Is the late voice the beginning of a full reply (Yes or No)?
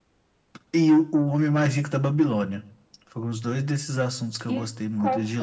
Yes